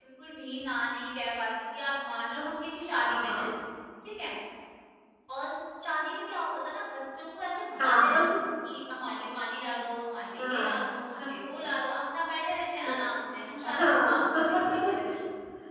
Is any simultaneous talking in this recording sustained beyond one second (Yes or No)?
Yes